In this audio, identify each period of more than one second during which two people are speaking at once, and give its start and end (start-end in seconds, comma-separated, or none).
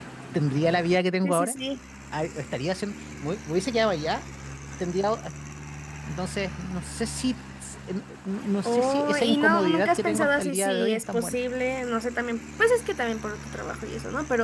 8.6-11.4